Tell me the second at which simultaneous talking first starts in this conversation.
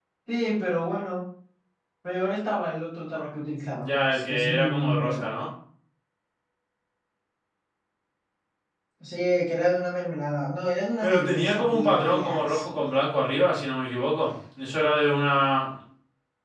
4 s

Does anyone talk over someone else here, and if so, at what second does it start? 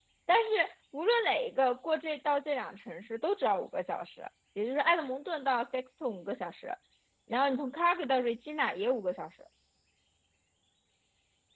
none

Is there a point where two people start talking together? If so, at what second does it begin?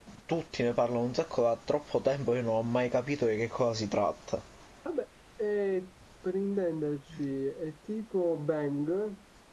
none

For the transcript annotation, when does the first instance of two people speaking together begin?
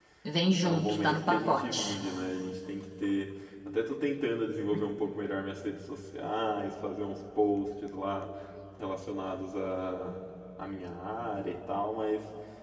1 s

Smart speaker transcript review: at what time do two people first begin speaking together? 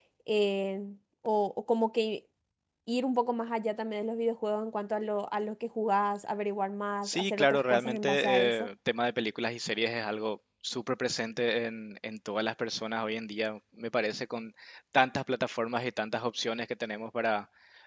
7 s

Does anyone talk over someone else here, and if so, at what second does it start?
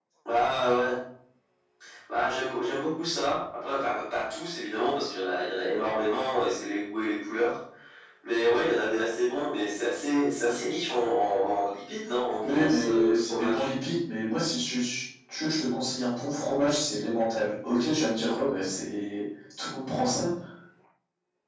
12 s

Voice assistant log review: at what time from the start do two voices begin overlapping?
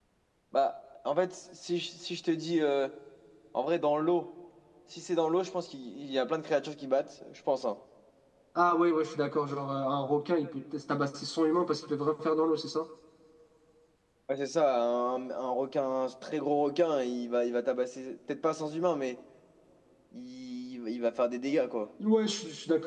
none

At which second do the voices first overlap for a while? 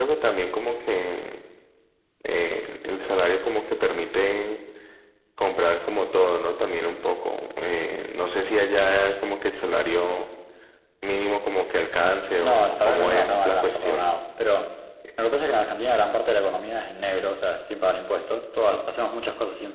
12 s

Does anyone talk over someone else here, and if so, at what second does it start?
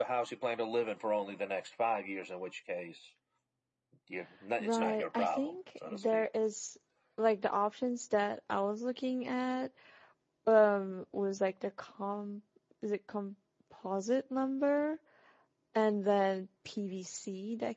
5 s

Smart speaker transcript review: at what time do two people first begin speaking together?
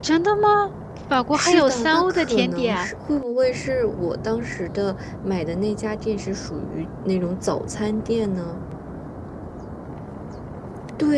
1 s

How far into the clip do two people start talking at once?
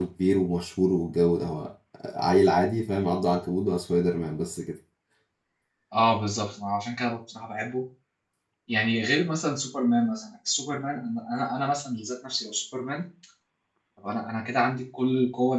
none

